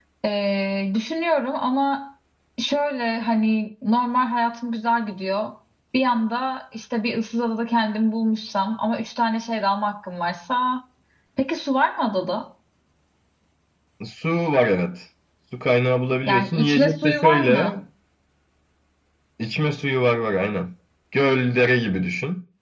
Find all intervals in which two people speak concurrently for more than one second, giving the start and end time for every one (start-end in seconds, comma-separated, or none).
16.3-17.8